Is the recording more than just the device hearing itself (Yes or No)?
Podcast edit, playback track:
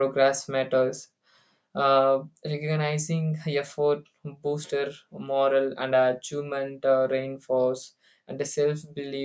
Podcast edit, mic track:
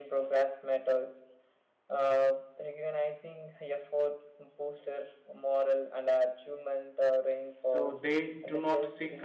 Yes